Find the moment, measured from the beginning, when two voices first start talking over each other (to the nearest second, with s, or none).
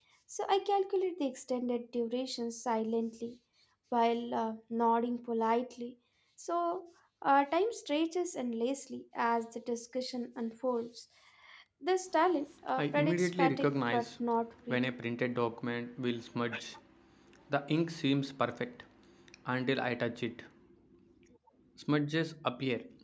13 s